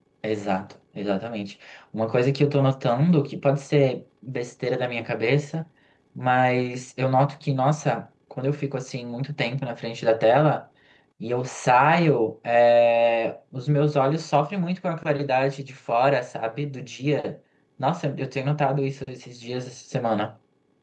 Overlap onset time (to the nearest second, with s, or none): none